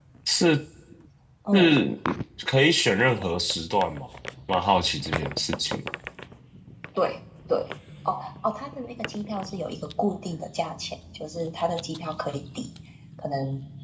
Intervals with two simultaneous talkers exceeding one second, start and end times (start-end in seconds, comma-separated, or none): none